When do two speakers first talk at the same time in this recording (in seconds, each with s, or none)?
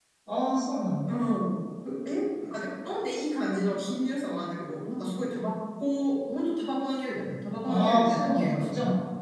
7.7 s